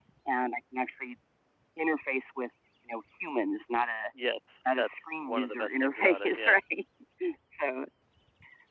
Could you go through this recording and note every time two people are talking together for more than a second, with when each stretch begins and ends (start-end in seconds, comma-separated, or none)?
4.6-6.5